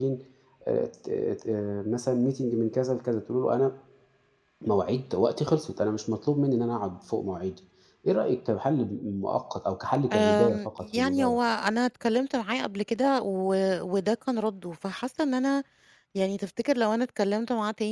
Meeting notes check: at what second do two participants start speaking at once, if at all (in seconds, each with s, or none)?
10.1 s